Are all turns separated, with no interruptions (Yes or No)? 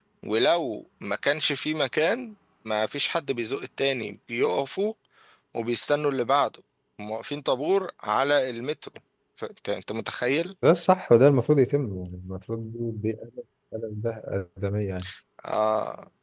Yes